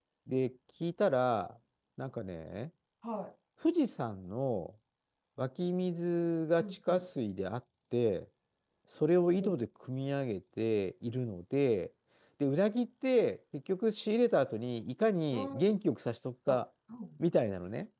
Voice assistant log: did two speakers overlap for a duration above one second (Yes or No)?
No